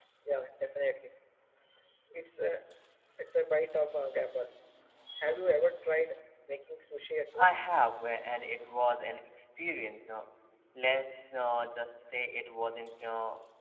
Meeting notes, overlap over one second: none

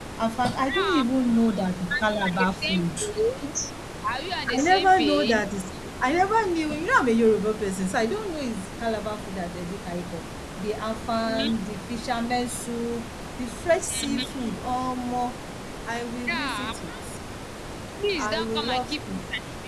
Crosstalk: present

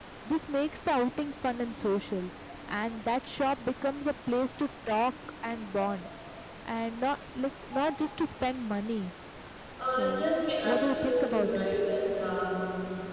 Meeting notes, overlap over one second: present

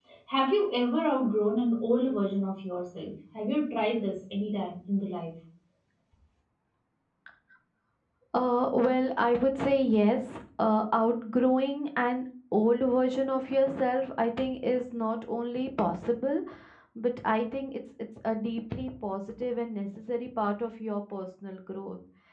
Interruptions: none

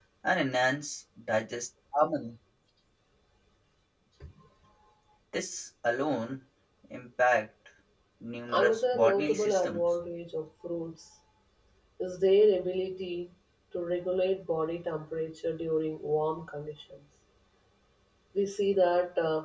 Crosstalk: present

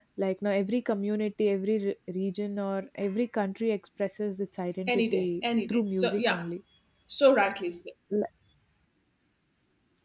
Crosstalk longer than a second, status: present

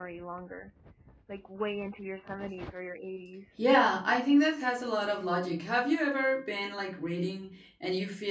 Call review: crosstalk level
none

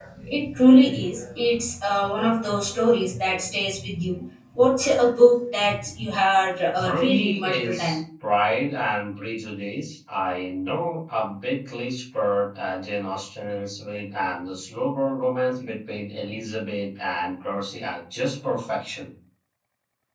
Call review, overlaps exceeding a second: present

